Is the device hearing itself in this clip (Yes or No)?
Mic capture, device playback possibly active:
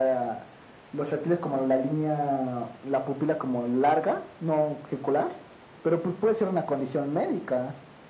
Yes